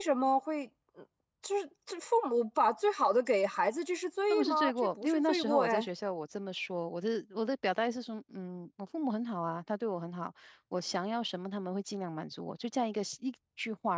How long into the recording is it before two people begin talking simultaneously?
4.3 s

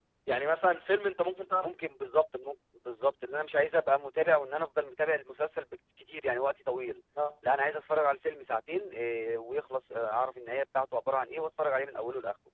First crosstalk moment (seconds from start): none

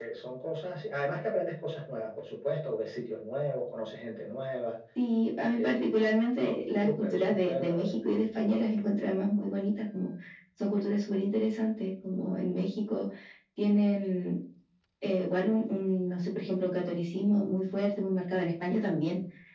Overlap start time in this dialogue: 5.6 s

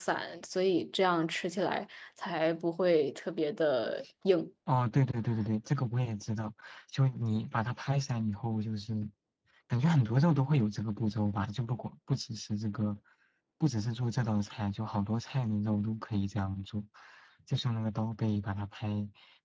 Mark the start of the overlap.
none

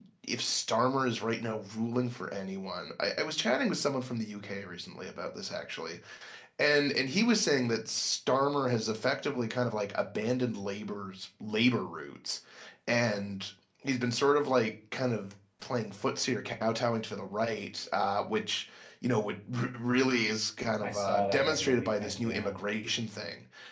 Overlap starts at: 20.8 s

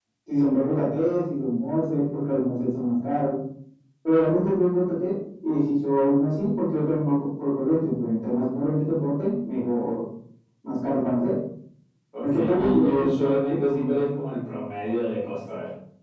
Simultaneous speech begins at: 12.2 s

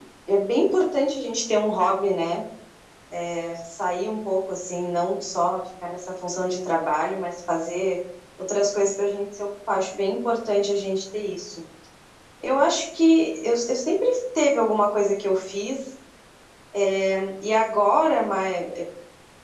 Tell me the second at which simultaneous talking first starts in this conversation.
none

